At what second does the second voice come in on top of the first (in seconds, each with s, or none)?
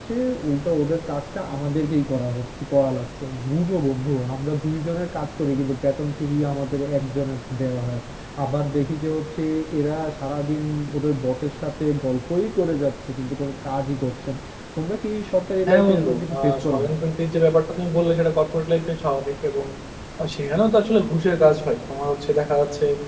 15.7 s